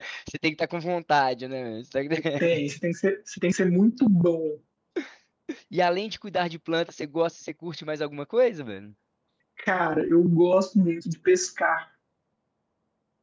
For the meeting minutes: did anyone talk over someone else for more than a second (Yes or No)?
No